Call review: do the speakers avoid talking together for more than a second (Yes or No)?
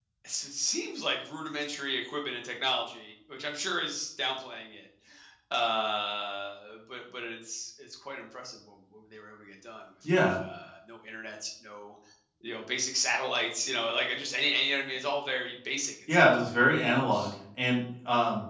Yes